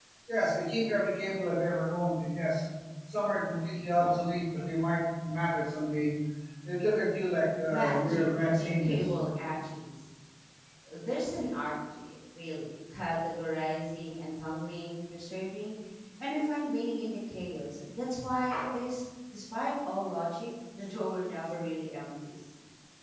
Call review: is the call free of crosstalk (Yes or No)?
No